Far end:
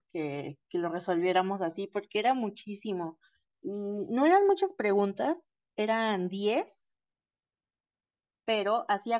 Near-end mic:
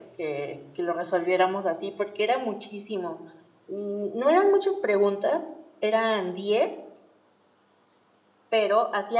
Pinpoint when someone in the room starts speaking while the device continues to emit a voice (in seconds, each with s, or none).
none